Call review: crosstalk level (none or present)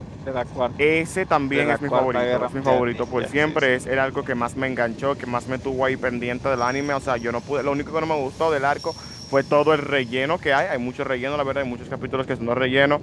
present